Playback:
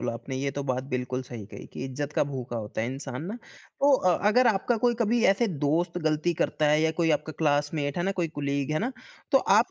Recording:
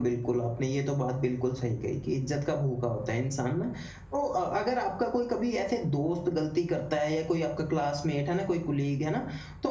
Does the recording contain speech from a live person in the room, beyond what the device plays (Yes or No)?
No